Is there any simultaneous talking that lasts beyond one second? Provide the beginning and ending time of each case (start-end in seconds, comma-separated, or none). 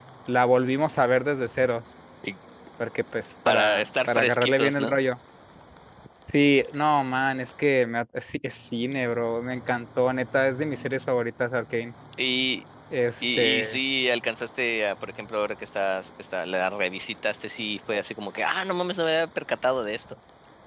3.5-5.0